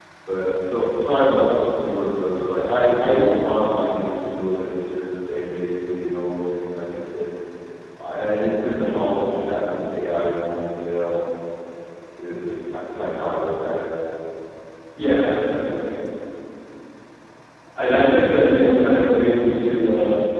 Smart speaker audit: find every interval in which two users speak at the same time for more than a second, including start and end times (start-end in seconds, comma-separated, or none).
none